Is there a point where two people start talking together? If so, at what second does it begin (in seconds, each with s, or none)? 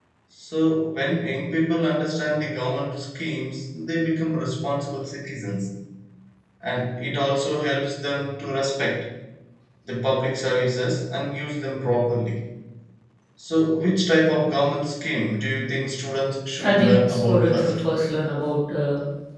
16.6 s